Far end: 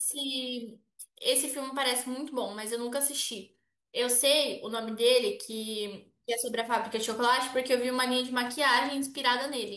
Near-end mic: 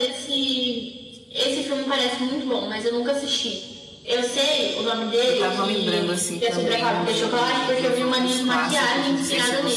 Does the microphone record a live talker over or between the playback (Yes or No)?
Yes